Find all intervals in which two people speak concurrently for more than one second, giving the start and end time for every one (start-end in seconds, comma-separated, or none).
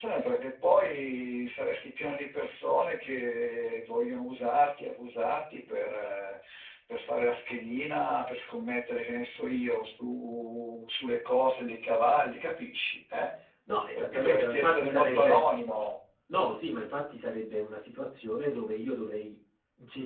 13.9-15.5